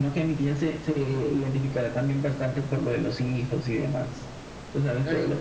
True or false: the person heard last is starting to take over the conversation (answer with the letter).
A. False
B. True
A